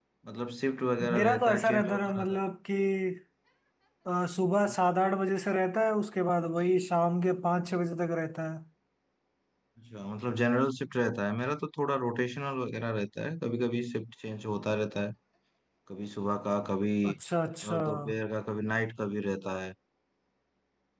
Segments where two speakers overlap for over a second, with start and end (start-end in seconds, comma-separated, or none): 1.1-2.4